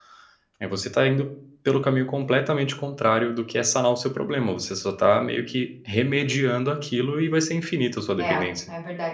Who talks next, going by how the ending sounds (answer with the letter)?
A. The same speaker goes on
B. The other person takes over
B